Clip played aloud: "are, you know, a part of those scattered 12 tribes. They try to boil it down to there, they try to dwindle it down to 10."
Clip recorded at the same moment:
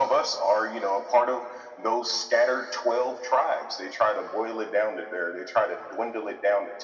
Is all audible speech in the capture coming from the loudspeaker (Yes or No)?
Yes